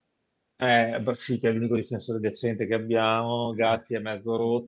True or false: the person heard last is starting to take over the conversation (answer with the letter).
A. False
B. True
A